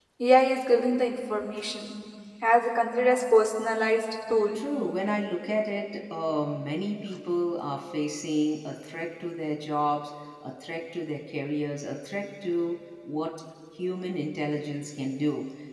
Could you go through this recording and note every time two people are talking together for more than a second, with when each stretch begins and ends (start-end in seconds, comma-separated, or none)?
none